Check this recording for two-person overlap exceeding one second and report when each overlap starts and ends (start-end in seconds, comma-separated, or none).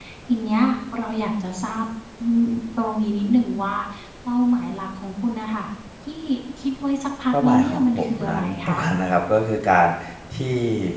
7.3-8.8